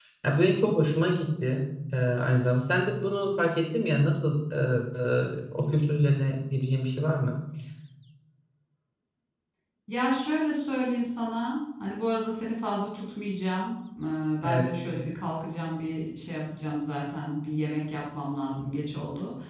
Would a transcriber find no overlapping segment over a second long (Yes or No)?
Yes